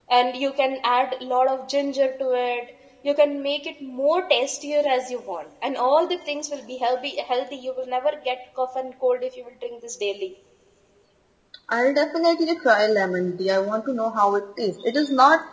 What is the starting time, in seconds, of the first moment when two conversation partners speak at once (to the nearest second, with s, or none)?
none